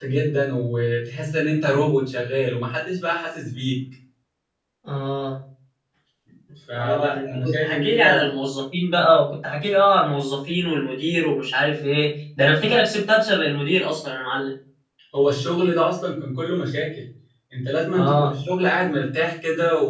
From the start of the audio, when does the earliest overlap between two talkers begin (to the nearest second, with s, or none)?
7 s